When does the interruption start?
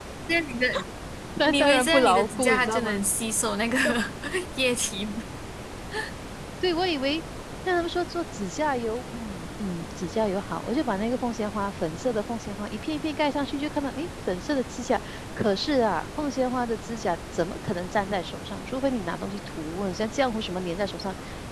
1.5 s

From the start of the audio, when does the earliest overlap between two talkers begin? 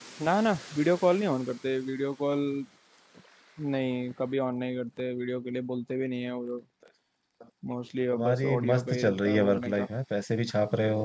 8.1 s

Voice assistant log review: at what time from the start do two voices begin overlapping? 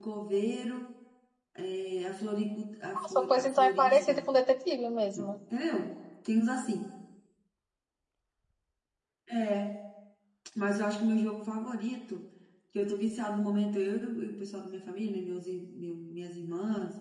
2.9 s

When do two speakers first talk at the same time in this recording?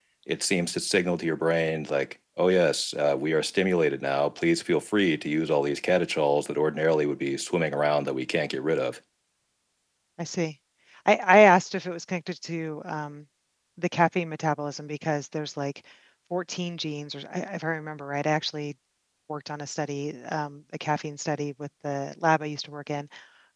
none

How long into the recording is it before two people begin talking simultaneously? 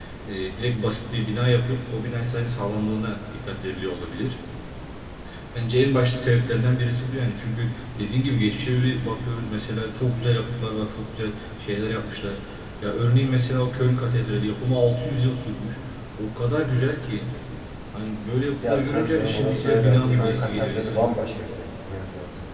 18.6 s

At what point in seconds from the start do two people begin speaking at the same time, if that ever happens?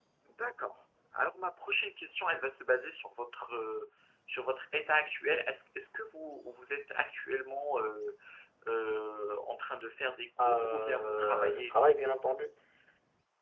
10.4 s

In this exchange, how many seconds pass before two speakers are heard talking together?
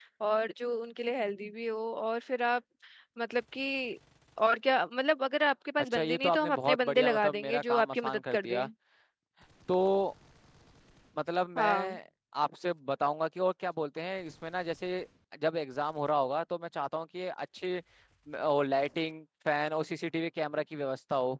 5.9 s

